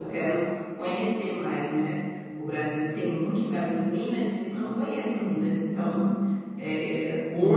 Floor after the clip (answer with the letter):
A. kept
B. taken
B